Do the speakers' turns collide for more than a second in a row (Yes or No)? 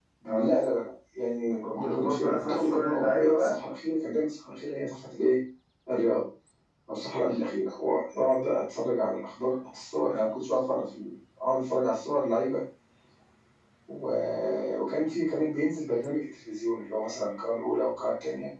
Yes